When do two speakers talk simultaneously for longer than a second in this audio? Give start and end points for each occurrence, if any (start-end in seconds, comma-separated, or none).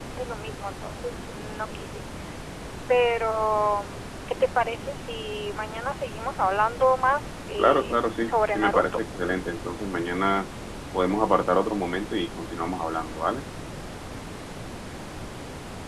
7.6-8.8